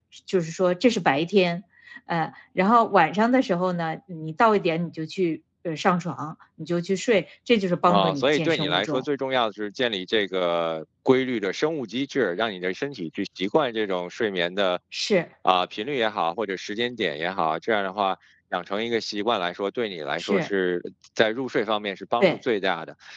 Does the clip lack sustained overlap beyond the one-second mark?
No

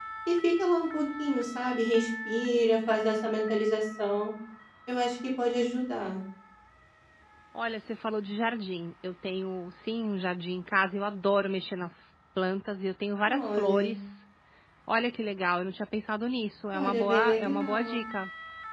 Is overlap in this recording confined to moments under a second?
No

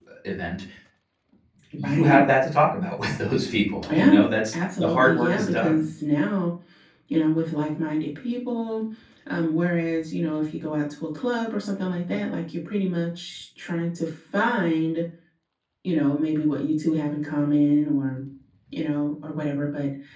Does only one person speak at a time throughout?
No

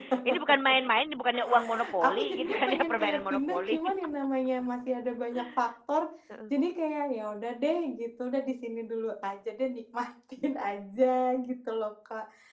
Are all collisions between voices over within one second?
No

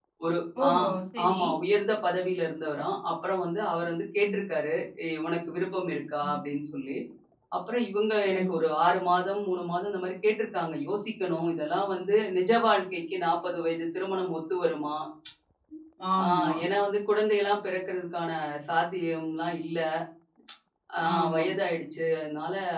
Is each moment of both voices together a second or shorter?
Yes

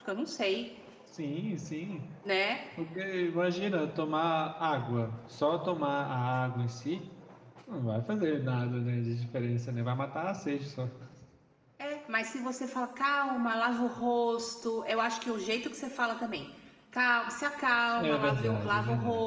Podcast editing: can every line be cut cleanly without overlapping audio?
No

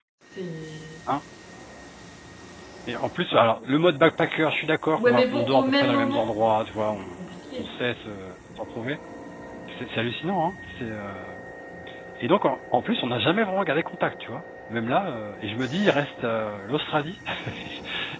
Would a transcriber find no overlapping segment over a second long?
No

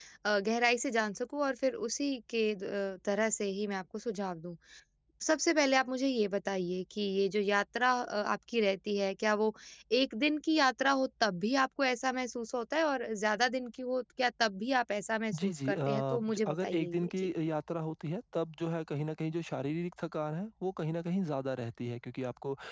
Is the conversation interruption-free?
No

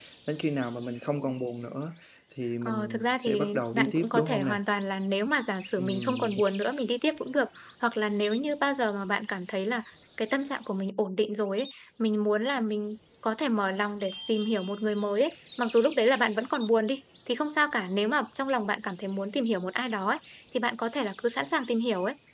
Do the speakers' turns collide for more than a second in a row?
Yes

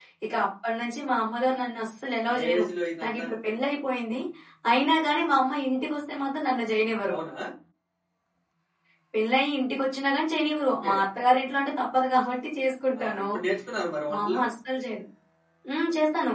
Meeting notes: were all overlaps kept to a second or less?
Yes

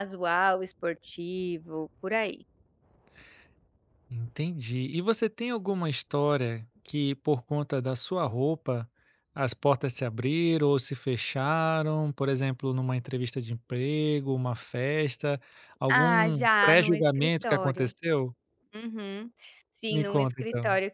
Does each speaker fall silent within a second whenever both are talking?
No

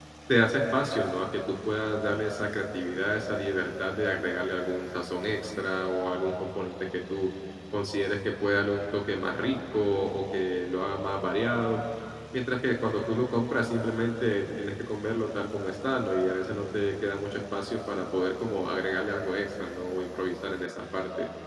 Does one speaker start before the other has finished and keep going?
No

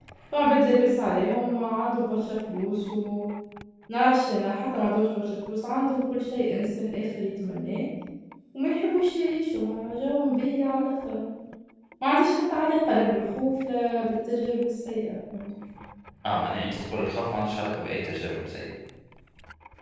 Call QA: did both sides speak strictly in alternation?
Yes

